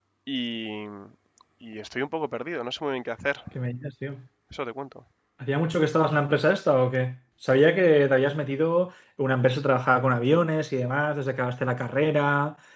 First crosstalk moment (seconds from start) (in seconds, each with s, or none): none